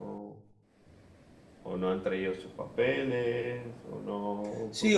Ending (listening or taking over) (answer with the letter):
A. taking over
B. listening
A